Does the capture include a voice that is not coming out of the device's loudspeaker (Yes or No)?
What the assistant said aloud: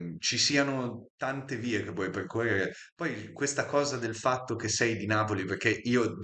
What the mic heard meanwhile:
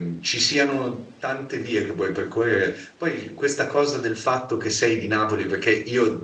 No